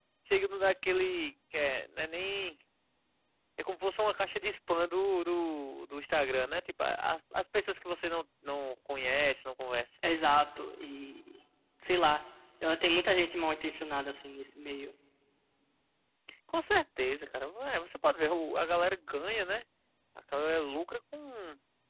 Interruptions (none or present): none